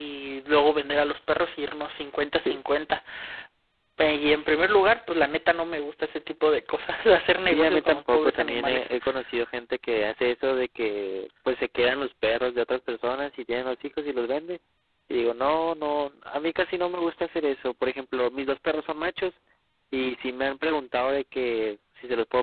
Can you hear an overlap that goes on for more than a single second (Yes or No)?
Yes